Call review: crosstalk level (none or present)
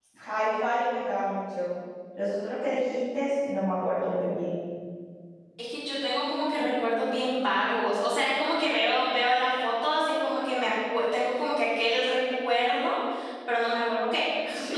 none